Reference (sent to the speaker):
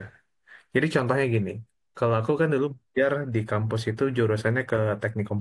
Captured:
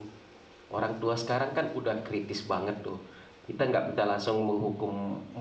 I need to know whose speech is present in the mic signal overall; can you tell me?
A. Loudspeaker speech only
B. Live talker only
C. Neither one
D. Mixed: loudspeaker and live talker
B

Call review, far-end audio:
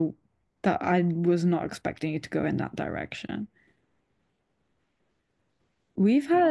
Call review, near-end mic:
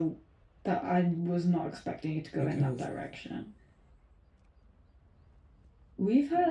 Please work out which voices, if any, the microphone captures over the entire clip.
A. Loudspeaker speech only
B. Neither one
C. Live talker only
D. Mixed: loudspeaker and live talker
D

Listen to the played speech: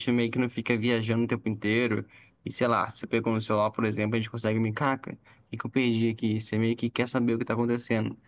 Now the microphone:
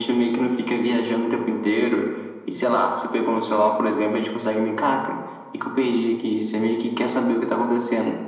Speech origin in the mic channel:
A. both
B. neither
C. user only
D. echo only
D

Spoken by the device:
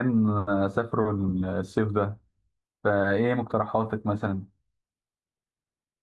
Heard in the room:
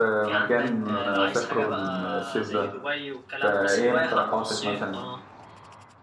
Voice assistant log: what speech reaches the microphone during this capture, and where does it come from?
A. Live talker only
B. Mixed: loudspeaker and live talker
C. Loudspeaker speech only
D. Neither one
B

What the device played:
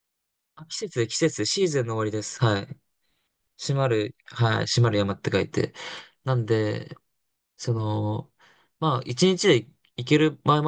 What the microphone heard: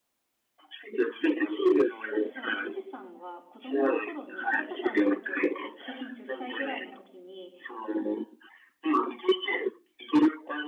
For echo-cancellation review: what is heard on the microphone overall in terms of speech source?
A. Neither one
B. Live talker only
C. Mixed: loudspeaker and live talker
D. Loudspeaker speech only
C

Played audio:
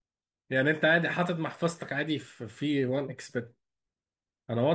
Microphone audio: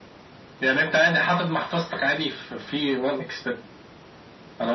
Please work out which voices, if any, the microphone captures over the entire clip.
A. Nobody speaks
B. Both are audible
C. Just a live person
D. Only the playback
D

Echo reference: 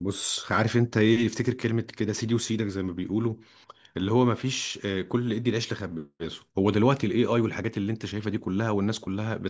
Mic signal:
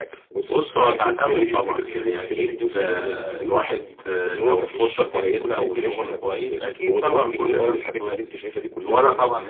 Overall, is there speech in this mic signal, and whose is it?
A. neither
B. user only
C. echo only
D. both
D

